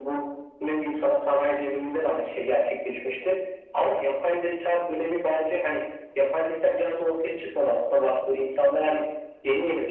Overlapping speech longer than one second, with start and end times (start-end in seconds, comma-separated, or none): none